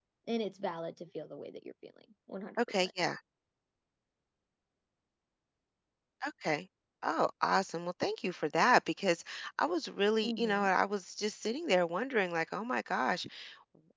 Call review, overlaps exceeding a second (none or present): none